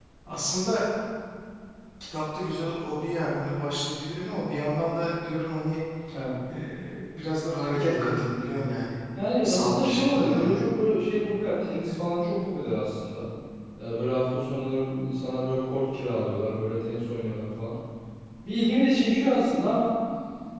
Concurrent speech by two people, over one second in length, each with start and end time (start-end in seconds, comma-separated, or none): 9.4-10.6